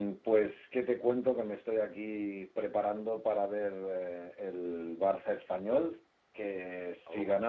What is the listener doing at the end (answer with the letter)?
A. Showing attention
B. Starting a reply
A